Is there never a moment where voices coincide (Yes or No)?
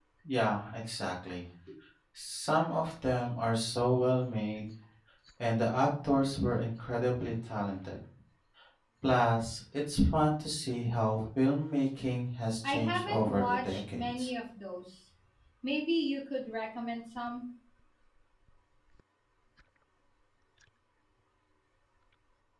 No